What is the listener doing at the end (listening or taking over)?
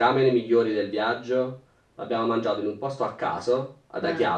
listening